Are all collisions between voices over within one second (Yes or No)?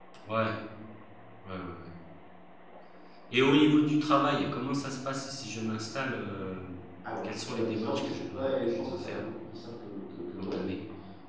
No